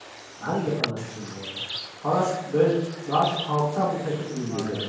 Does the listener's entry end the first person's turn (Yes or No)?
Yes